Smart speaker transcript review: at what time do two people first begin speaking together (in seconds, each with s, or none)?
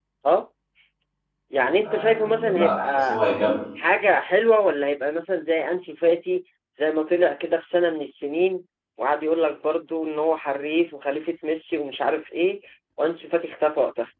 1.8 s